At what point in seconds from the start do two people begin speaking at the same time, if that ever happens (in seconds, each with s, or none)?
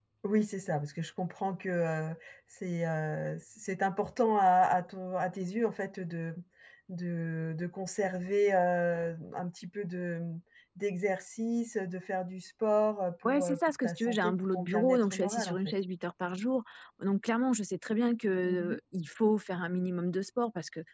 13.2 s